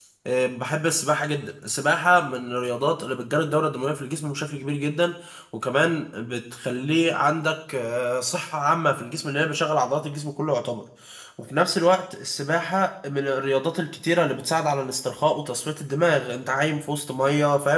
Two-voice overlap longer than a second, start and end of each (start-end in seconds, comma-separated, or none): none